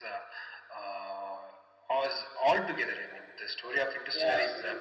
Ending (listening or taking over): taking over